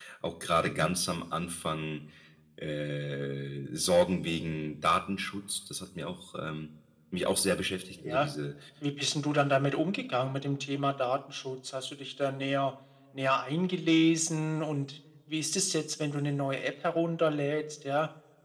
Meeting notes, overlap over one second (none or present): none